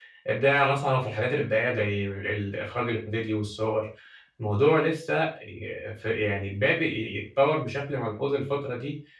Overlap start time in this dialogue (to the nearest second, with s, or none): none